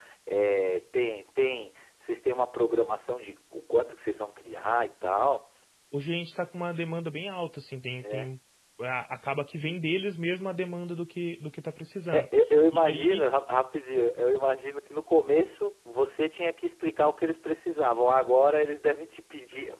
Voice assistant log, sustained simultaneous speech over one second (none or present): none